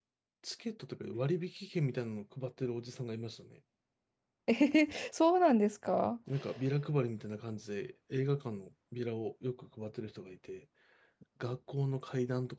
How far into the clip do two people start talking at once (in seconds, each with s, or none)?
none